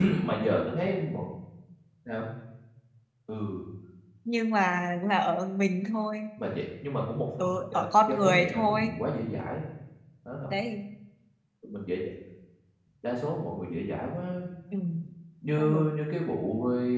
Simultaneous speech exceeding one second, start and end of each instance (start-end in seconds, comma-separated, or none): 7.4-8.9